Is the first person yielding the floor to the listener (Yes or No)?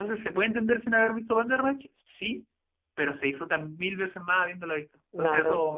Yes